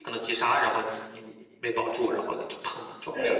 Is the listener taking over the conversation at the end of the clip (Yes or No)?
Yes